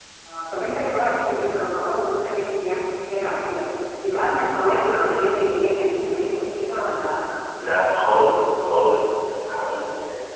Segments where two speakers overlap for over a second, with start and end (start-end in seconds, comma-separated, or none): none